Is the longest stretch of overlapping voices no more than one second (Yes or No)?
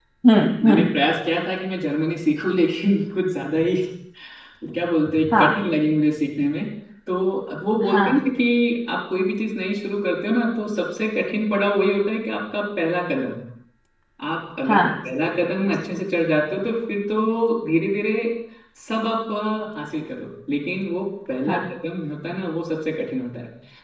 Yes